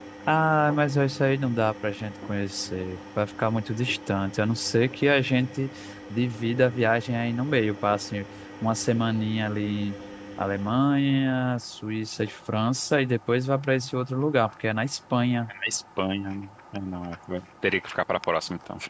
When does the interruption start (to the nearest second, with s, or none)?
none